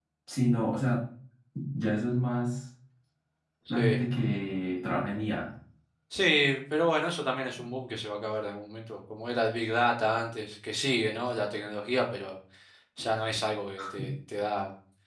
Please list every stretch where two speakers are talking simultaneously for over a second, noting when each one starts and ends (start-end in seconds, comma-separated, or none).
none